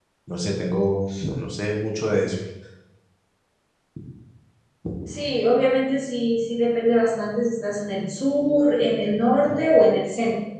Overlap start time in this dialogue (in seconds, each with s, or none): none